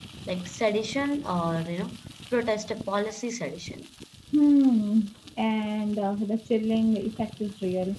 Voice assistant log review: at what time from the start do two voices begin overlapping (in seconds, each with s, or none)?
none